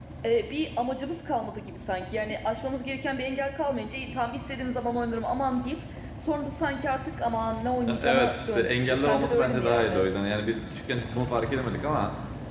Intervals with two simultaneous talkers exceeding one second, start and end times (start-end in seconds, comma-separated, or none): 7.9-10.1